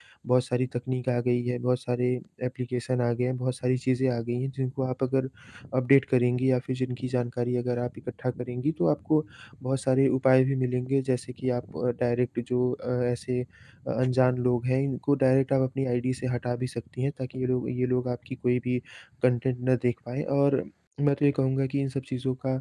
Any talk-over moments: No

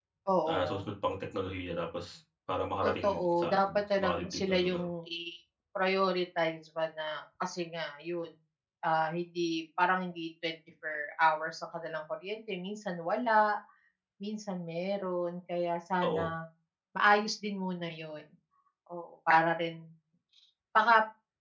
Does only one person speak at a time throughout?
No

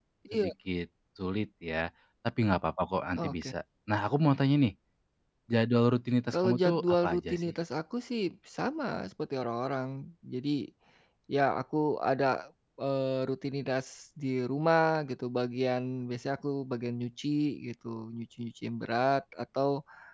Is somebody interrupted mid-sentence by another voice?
Yes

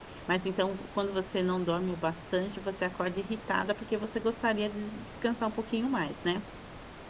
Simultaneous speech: No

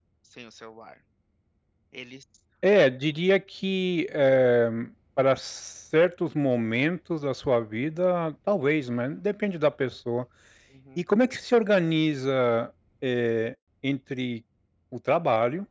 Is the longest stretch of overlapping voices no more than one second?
Yes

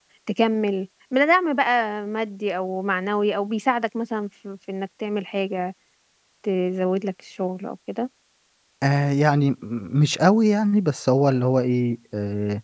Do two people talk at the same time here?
No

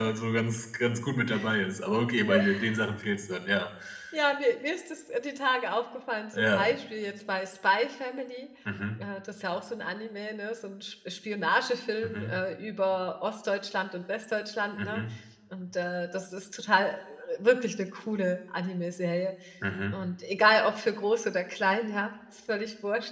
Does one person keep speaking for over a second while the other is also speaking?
No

